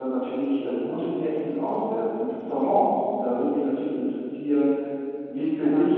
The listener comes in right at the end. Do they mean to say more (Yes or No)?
No